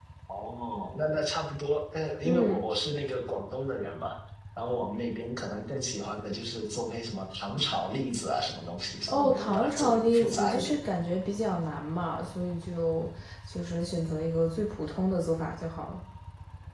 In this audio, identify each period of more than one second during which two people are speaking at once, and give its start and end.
9.1-10.8

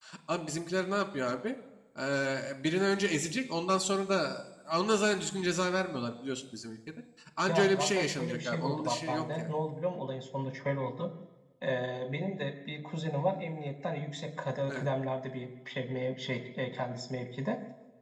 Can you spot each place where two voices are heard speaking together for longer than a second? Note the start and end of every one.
7.5-9.5

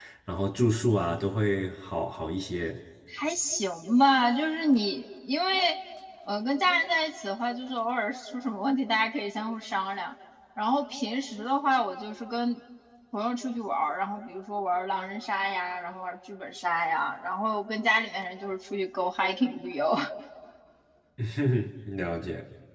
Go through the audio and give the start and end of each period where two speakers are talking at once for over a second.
none

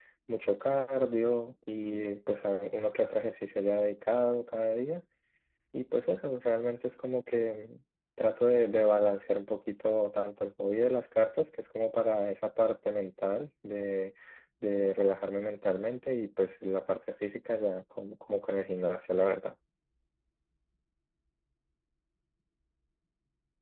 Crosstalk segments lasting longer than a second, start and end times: none

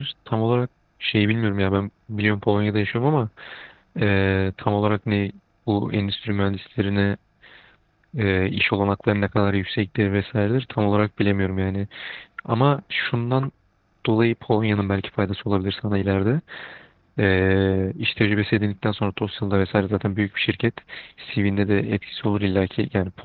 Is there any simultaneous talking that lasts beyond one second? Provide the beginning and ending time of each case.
none

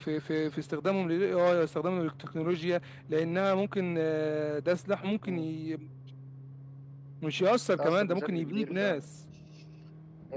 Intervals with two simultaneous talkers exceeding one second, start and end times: 7.8-9.1

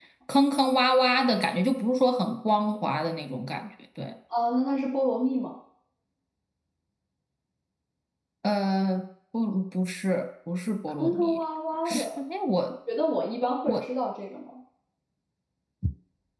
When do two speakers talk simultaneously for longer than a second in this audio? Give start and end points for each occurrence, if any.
none

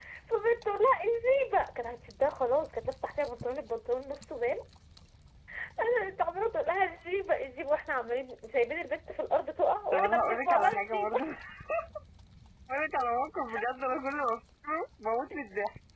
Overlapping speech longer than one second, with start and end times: 9.9-11.2

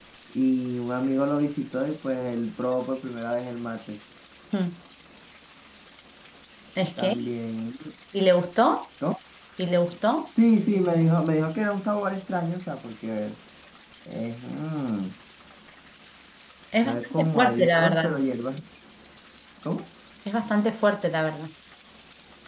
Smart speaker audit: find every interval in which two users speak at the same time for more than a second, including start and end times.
16.8-18.2

